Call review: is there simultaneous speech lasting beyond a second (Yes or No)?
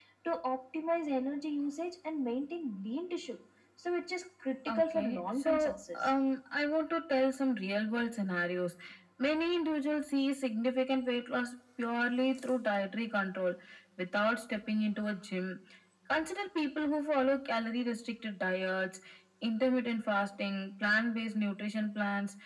Yes